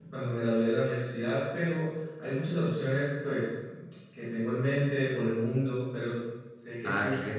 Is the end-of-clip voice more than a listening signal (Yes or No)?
Yes